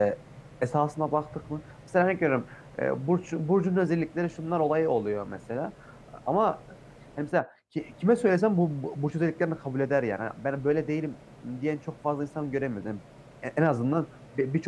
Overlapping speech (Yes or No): No